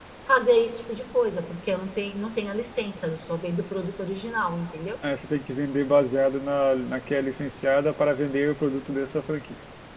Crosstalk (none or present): none